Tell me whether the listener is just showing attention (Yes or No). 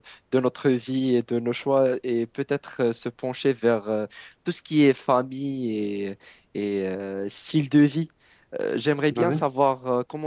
Yes